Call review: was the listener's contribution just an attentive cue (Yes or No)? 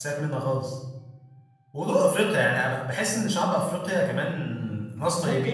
No